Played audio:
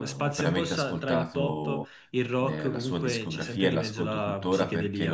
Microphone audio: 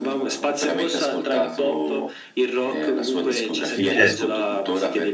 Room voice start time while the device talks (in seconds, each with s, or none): 3.7 s